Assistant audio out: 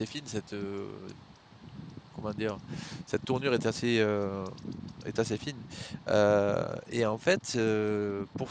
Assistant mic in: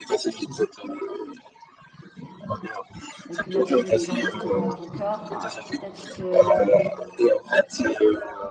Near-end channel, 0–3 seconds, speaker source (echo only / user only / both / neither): echo only